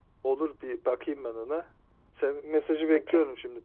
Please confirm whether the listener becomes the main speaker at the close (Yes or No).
No